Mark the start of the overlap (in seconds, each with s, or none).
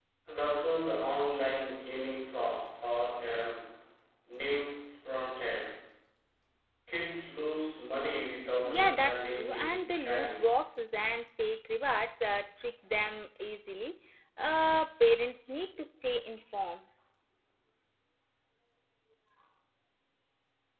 8.6 s